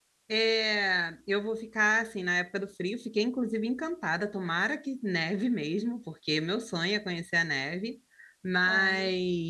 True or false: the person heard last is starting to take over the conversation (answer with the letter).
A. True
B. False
B